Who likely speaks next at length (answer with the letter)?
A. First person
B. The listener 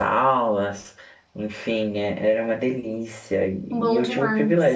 A